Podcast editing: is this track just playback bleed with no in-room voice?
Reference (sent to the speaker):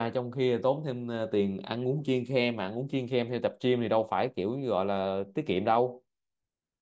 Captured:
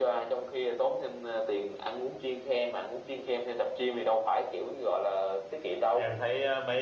No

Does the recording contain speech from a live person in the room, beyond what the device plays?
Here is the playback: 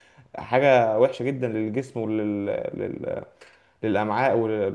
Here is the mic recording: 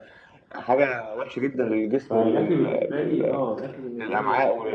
Yes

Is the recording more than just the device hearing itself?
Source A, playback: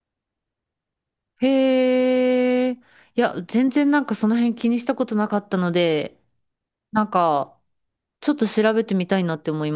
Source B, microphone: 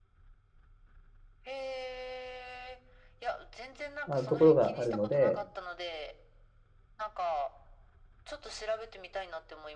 Yes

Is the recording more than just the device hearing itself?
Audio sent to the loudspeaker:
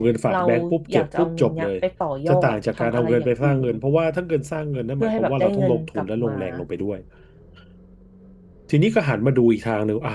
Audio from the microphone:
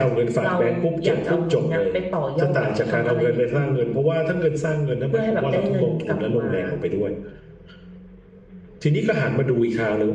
No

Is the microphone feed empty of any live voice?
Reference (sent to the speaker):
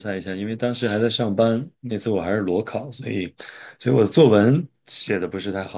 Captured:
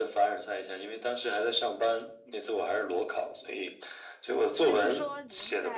No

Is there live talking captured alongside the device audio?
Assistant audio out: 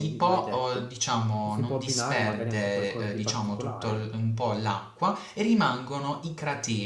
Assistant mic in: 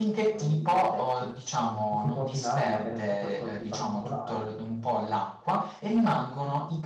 No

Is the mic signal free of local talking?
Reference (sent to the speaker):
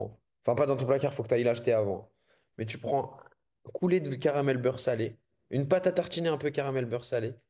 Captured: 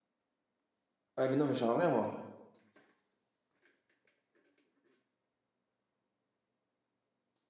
No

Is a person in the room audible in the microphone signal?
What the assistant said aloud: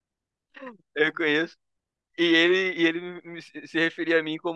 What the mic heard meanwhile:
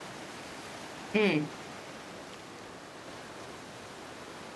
Yes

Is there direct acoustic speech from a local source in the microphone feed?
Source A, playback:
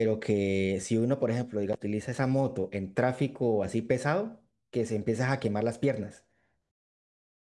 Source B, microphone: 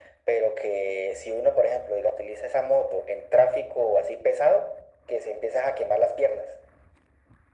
No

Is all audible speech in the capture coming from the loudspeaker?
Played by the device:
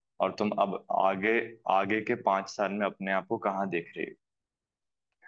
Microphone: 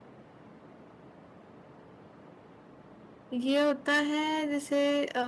No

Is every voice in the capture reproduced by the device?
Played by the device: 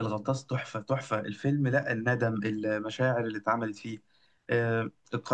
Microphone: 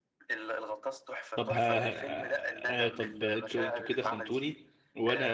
No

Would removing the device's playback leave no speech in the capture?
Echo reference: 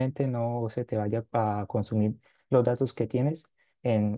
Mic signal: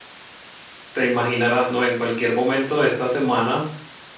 No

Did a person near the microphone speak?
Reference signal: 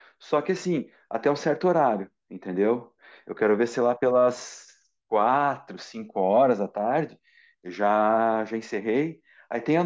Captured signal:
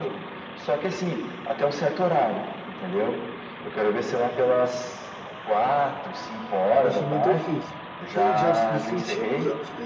Yes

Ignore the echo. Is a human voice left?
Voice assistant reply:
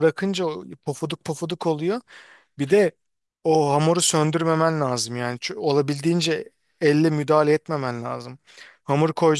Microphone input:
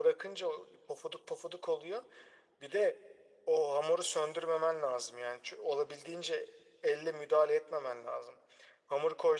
No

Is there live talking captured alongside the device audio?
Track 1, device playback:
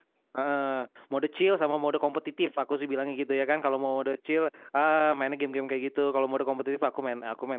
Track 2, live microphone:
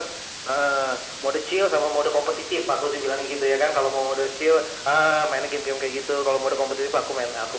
No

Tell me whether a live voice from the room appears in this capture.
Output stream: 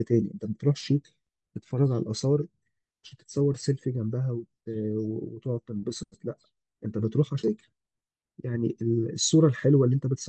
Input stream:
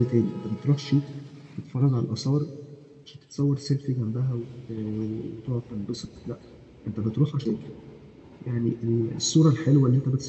No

